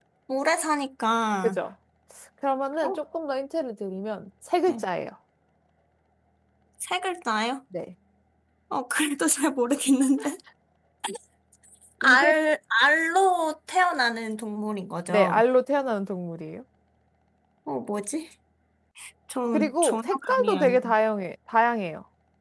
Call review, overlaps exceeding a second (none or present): present